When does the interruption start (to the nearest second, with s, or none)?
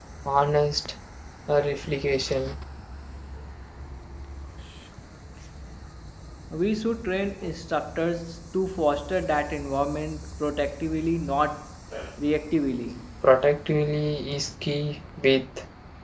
none